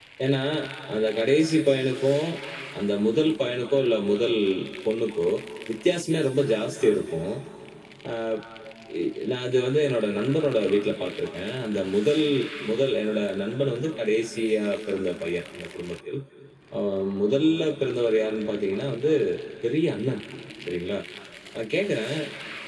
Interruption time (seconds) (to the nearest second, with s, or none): none